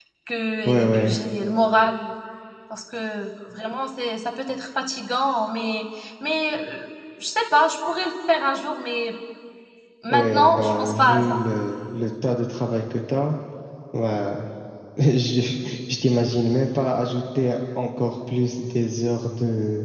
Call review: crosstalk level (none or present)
present